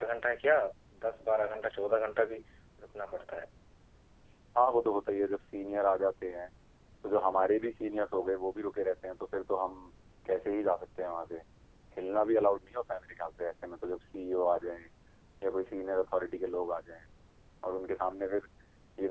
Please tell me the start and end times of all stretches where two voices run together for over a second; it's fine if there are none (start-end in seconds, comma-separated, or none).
none